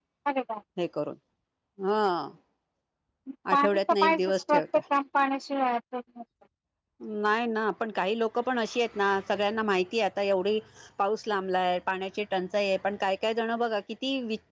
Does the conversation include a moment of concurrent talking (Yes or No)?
Yes